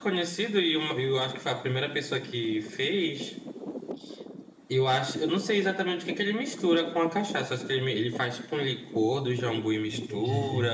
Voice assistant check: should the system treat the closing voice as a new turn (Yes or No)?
No